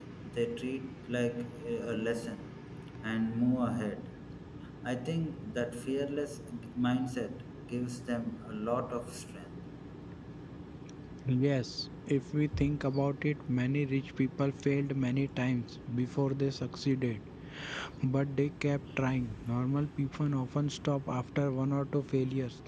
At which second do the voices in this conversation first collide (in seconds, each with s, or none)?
none